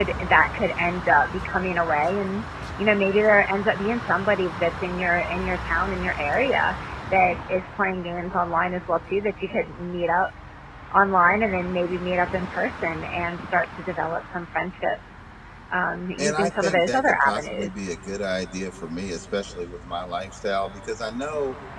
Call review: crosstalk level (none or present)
present